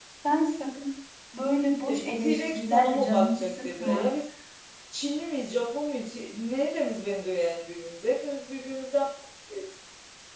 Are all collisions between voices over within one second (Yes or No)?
No